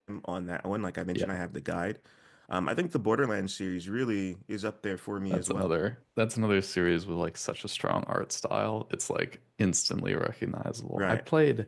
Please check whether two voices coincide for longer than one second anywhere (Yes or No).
No